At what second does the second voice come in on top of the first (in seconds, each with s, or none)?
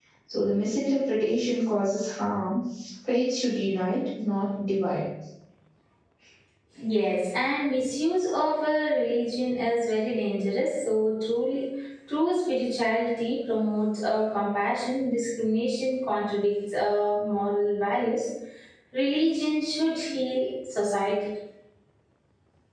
none